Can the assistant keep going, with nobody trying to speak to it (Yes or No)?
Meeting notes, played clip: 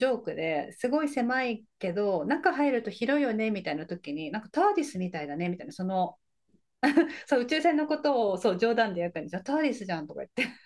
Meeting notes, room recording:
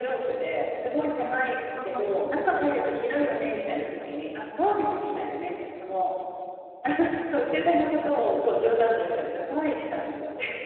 No